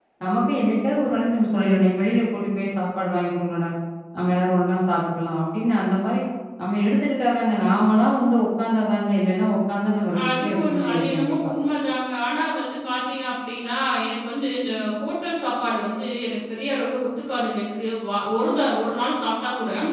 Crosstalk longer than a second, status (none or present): present